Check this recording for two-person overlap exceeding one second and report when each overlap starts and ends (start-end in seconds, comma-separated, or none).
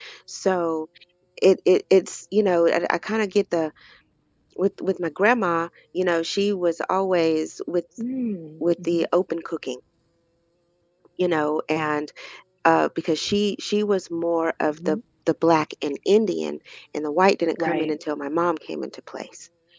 none